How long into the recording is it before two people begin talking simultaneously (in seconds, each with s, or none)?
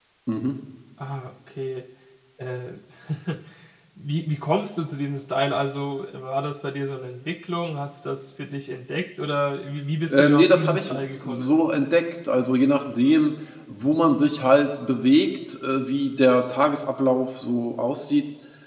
10.1 s